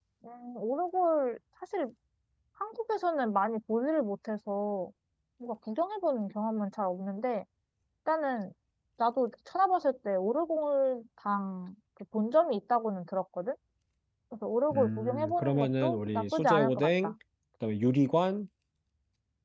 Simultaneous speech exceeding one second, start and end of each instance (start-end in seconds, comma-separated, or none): 14.7-17.1